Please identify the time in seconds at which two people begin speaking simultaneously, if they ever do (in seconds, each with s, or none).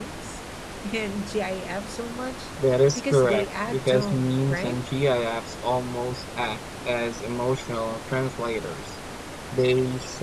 3.0 s